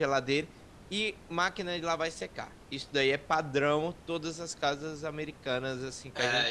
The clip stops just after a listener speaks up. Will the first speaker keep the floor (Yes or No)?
No